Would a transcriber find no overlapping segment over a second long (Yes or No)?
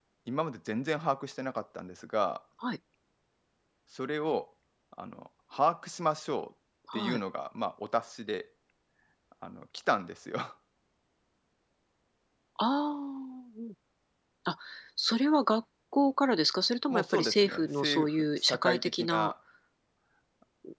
No